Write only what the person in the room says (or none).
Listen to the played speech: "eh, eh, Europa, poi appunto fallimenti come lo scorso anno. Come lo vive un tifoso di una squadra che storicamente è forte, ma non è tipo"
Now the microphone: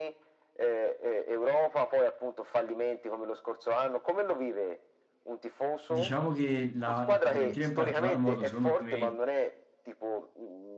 Diciamo che la, la Fiorentina in particolar modo, secondo me,